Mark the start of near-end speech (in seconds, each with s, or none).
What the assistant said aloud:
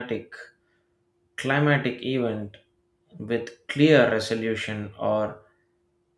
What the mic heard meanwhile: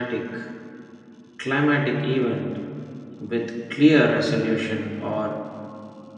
none